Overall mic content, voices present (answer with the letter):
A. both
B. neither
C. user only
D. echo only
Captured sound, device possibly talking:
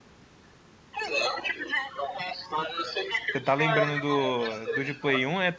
A